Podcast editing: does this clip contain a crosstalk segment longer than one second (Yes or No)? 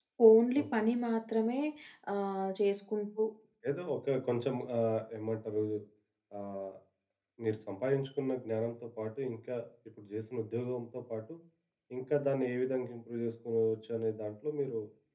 No